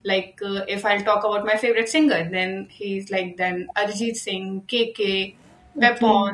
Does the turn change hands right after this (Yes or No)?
No